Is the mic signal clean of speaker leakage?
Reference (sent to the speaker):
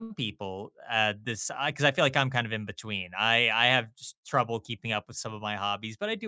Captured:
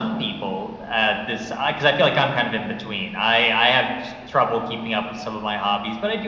No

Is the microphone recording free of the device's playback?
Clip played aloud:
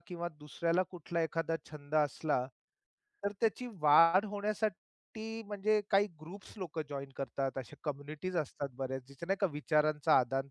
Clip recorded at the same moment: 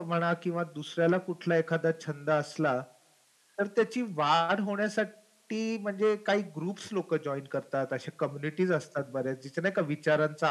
No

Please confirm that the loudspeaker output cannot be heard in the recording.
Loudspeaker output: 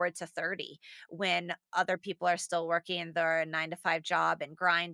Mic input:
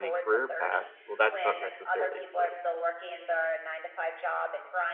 No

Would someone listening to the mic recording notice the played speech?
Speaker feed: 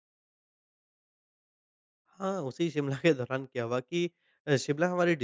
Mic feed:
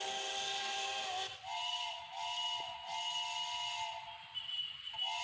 No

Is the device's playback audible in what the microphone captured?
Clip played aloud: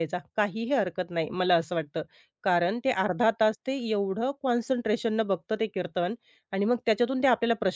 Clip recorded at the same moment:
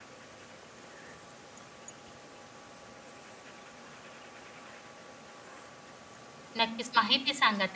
No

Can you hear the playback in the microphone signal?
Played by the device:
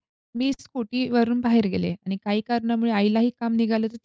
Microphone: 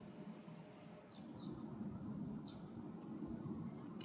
No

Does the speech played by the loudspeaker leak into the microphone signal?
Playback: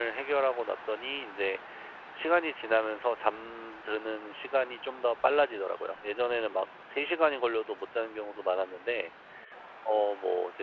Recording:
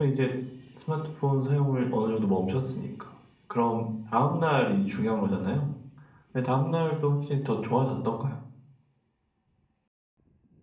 No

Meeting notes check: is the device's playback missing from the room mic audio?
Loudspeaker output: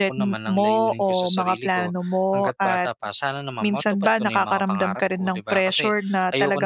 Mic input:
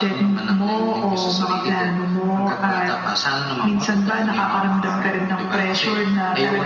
No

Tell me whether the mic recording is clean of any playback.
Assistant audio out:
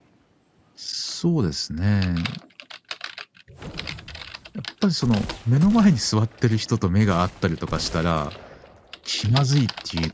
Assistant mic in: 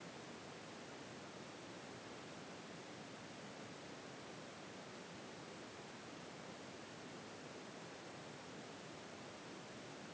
Yes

